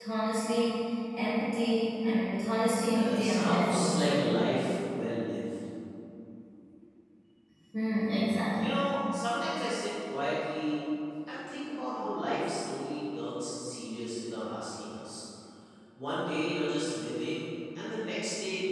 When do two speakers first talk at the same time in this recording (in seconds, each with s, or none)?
2.9 s